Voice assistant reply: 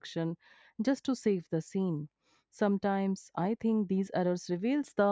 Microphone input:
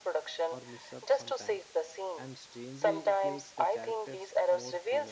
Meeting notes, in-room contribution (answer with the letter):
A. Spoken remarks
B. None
A